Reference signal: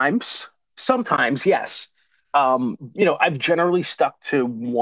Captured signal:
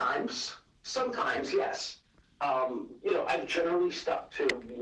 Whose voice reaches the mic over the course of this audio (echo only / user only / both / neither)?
echo only